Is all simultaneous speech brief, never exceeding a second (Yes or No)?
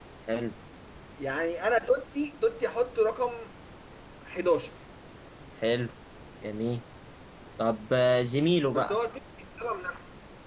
Yes